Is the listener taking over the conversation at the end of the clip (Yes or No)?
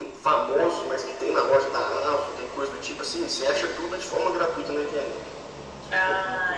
Yes